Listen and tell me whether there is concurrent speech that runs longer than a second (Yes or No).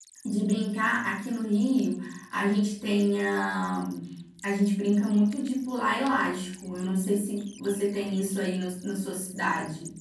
No